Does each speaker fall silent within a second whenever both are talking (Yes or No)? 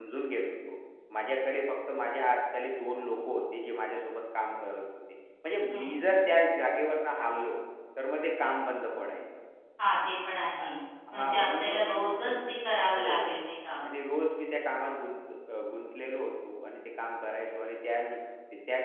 No